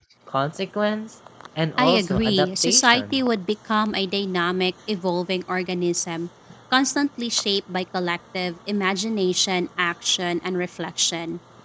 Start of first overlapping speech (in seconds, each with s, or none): 1.8 s